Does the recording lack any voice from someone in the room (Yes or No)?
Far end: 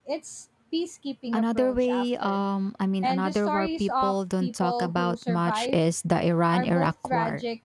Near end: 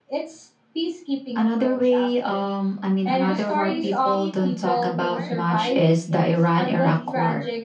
No